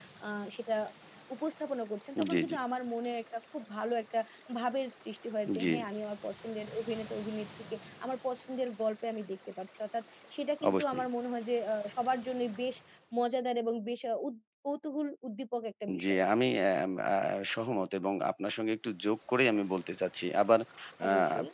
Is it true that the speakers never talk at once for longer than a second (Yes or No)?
Yes